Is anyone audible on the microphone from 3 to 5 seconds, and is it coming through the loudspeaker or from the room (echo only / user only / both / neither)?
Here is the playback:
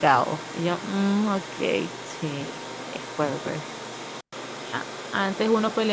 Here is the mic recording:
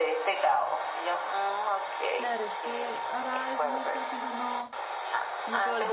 both